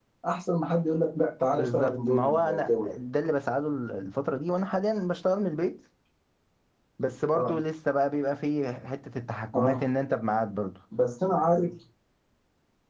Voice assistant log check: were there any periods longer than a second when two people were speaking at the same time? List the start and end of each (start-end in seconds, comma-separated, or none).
1.5-2.9